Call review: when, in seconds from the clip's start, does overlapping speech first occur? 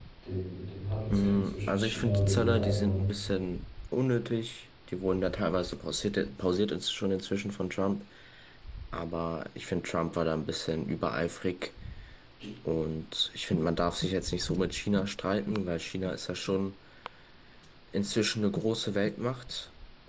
1.1 s

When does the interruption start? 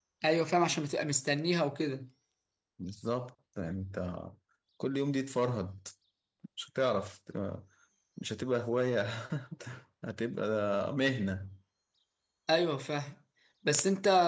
none

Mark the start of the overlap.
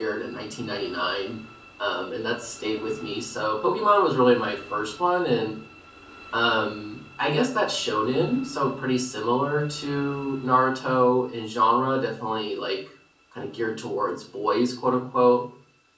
none

